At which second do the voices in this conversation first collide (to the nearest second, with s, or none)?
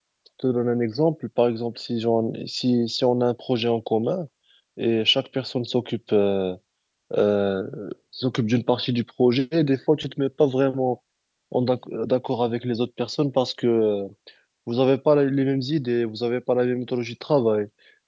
none